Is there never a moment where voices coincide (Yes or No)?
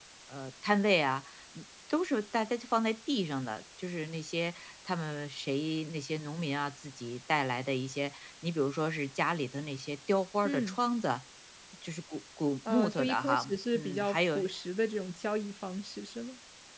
No